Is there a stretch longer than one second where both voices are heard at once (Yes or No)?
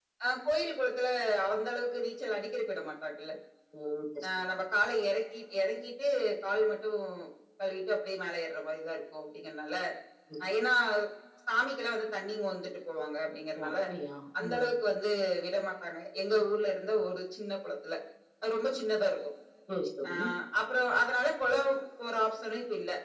No